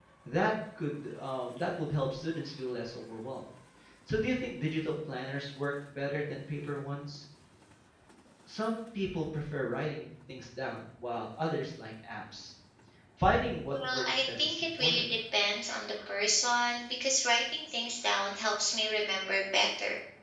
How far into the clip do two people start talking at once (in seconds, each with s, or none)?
13.7 s